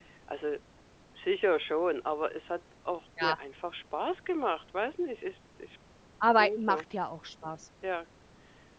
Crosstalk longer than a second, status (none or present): none